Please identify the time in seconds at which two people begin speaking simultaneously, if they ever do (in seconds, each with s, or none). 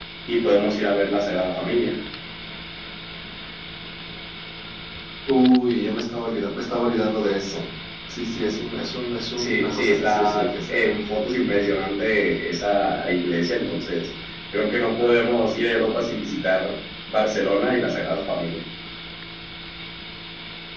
9.4 s